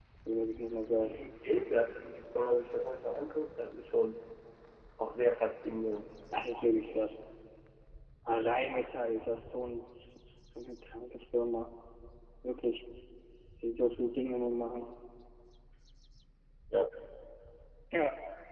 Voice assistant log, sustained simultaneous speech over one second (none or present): none